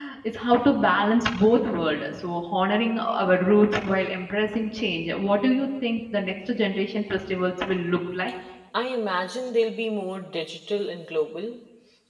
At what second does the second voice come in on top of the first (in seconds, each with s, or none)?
none